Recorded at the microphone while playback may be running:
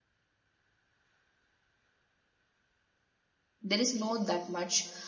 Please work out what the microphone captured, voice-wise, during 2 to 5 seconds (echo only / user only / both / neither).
user only